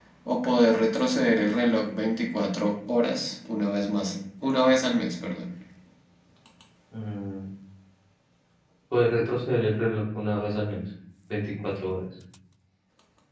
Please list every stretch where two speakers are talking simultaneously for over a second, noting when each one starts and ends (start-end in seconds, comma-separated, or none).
none